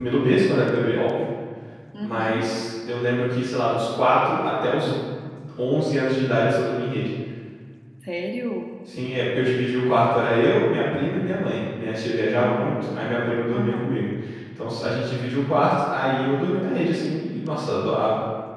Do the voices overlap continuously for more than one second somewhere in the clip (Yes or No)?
No